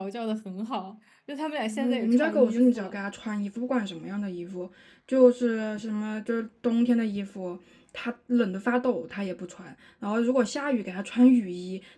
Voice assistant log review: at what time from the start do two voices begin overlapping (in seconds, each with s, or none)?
1.6 s